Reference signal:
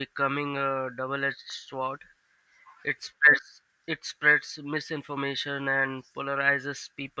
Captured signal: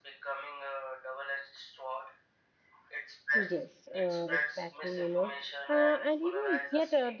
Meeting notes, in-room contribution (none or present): present